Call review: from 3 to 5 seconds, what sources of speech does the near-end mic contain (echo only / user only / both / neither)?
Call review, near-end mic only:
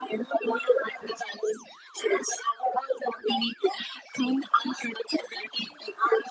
echo only